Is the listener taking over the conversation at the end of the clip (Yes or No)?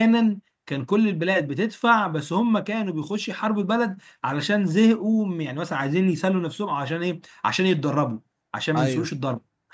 No